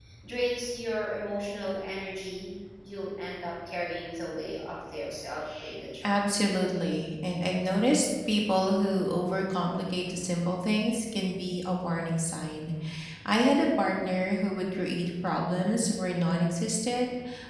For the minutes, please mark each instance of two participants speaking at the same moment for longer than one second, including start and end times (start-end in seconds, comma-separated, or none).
none